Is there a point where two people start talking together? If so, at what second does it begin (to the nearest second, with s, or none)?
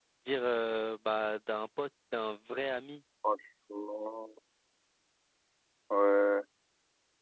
none